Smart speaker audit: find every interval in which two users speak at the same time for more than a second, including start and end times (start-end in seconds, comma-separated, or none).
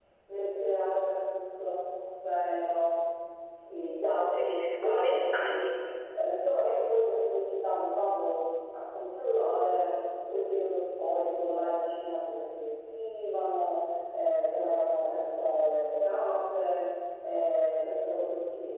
4.3-5.6